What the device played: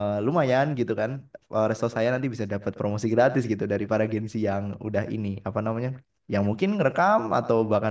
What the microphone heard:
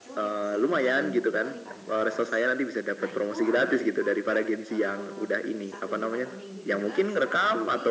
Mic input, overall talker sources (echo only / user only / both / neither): both